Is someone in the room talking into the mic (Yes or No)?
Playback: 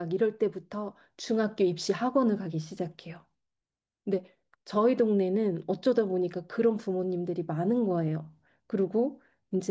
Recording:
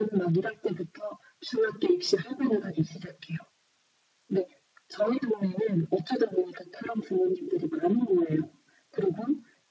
No